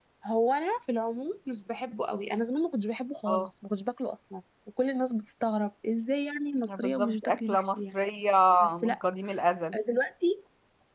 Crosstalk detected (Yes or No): Yes